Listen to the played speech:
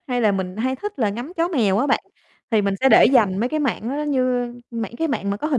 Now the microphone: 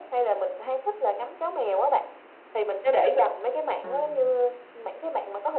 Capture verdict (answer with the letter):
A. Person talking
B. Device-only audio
A